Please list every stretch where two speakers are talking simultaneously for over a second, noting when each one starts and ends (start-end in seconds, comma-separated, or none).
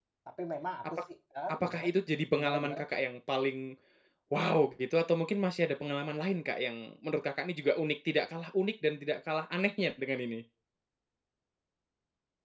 none